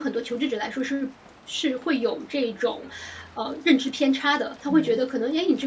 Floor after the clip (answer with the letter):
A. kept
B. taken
A